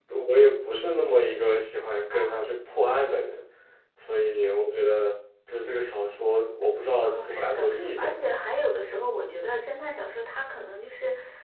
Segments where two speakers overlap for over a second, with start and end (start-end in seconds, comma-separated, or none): 7.0-8.3